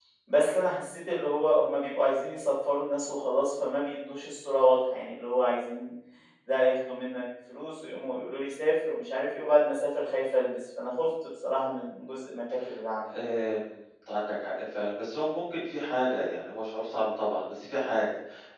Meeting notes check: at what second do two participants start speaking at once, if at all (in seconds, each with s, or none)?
none